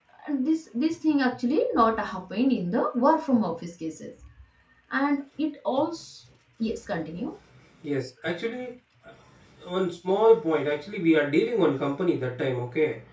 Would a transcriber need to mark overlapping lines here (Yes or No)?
No